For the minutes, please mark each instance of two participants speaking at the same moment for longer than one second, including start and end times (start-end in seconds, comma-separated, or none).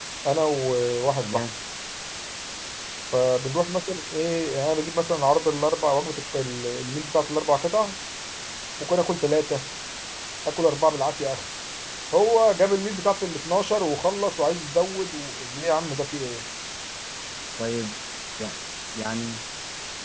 none